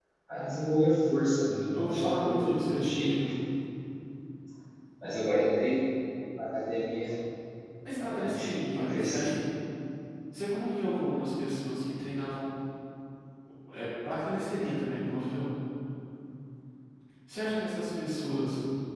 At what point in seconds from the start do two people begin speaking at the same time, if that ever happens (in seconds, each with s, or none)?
1.7 s